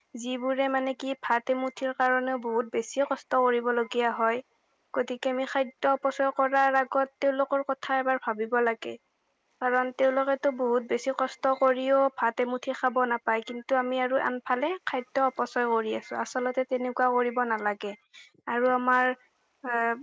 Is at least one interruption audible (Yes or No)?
No